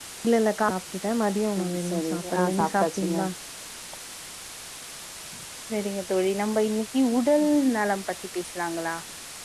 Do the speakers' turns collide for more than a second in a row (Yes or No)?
Yes